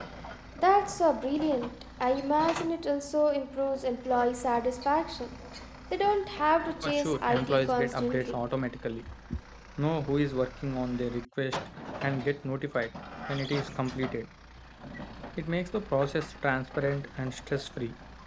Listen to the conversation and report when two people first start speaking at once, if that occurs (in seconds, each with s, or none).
6.8 s